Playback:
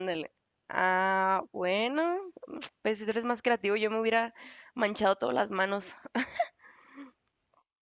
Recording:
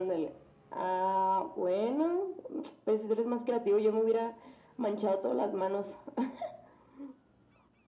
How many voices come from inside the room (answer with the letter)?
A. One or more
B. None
B